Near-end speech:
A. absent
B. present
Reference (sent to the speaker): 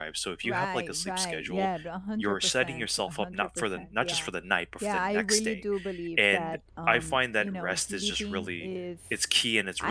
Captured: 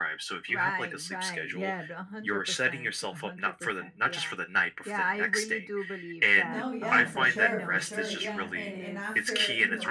B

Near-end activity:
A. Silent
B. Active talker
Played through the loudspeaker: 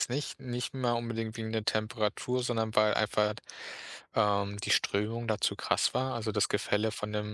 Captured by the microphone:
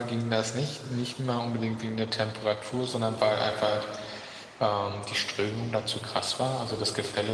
A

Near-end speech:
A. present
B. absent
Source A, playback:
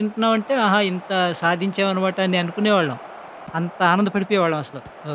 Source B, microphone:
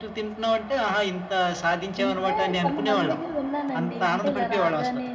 A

